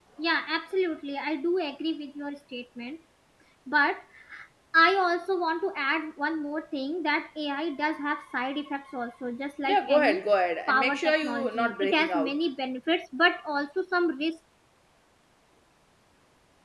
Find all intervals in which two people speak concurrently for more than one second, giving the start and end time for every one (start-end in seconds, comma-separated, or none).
10.7-12.4